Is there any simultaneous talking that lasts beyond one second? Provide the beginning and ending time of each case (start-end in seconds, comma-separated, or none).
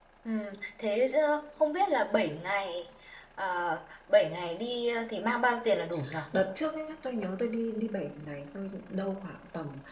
none